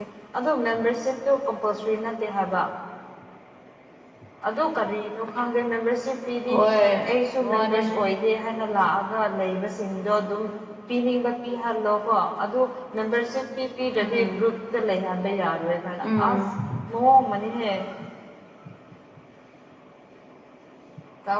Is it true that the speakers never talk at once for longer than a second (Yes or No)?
Yes